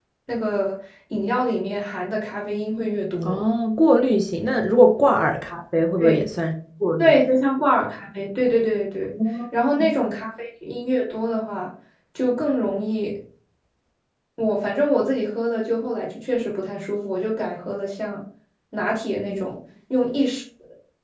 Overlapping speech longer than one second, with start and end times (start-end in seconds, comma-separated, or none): none